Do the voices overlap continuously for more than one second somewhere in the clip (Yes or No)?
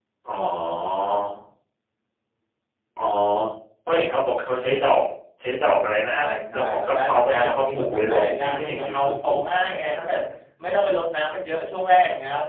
Yes